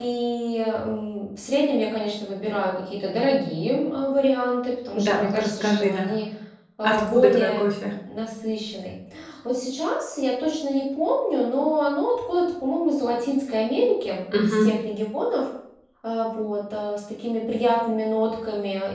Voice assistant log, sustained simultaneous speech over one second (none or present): present